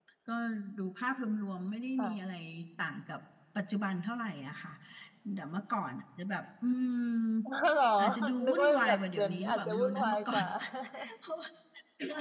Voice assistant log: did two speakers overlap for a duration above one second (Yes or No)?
Yes